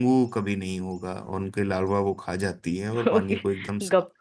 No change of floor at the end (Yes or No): No